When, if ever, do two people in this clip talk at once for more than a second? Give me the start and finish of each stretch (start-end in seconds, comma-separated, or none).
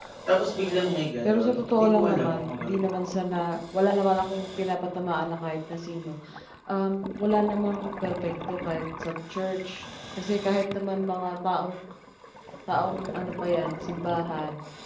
1.2-3.0